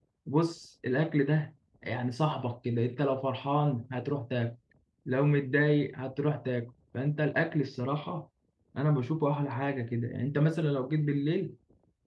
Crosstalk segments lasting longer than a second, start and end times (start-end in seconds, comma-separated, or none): none